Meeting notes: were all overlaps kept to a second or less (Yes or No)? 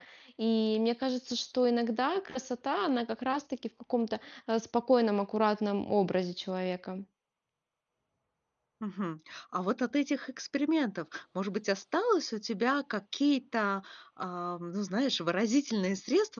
Yes